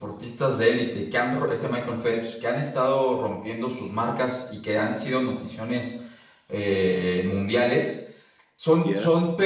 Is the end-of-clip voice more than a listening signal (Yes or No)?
No